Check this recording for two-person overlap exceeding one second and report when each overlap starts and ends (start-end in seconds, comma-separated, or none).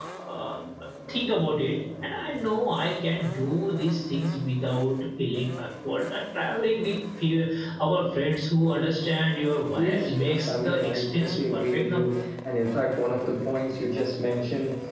9.8-12.2